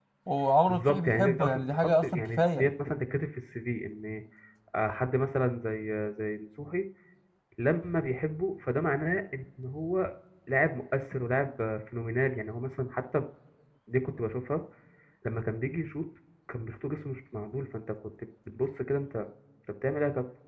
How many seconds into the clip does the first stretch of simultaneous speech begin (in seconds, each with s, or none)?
0.7 s